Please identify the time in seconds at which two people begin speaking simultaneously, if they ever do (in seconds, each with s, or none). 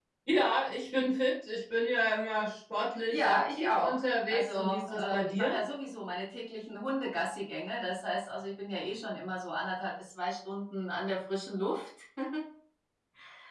3.1 s